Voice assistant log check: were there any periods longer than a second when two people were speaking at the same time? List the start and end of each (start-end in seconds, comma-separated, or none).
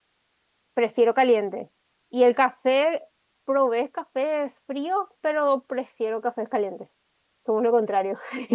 none